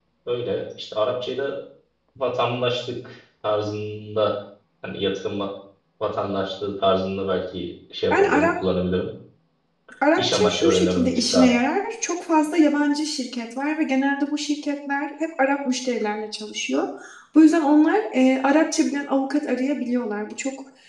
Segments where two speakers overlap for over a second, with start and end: 10.2-11.5

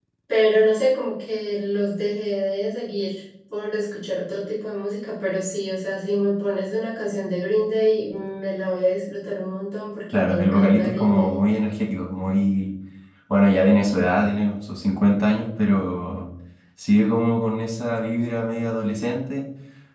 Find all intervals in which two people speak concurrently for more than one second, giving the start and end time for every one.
10.1-11.4

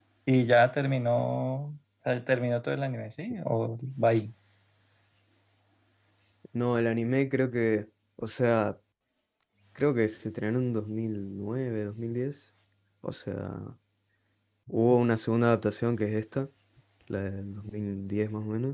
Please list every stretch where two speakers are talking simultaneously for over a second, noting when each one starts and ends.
none

